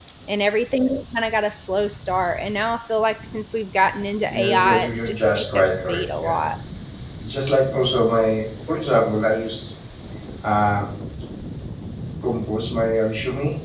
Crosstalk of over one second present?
Yes, from 4.2 s

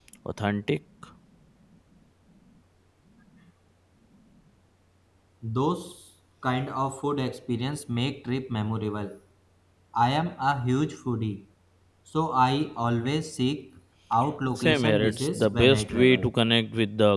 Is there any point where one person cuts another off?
Yes, from 14.6 s

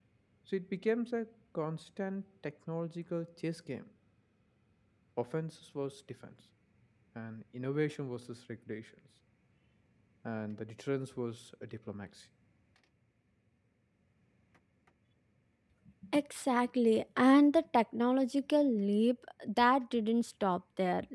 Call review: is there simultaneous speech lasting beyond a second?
No

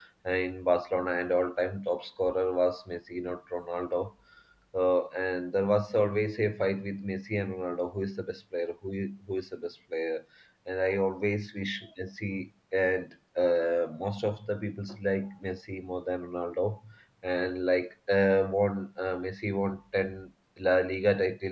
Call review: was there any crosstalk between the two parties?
No

